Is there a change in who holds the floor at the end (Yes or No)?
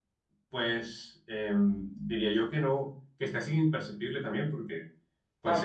Yes